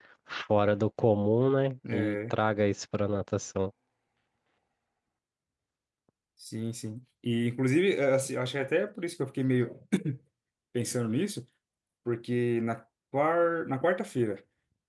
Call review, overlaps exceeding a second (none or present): none